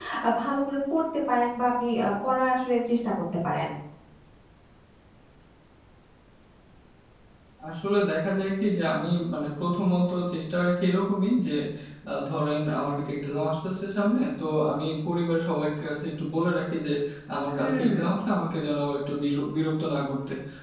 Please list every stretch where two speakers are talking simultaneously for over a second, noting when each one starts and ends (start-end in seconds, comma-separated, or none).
none